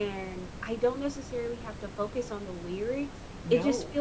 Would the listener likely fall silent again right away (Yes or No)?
Yes